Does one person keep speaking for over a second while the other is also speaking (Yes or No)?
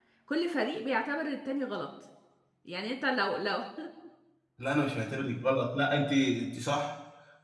No